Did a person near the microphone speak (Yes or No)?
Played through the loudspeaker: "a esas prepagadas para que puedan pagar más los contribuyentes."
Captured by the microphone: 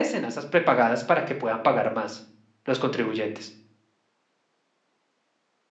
No